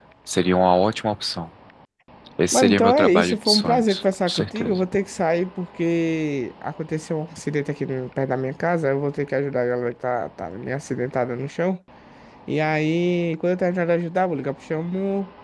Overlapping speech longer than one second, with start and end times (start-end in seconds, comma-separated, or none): 2.5-4.8